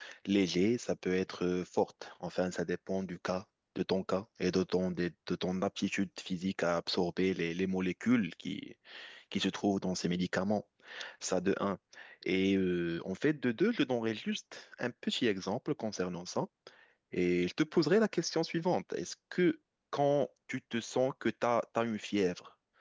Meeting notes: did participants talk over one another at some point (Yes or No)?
No